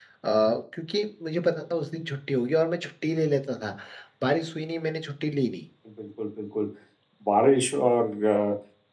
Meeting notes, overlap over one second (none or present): none